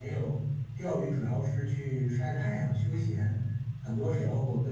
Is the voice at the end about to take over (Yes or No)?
No